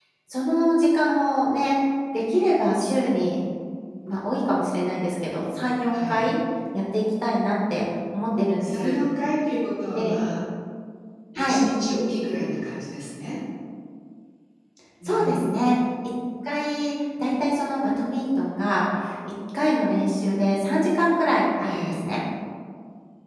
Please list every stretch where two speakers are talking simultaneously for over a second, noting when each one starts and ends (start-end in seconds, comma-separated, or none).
none